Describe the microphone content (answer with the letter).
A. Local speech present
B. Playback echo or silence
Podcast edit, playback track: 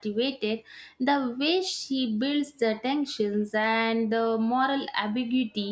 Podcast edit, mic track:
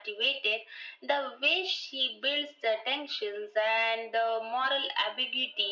B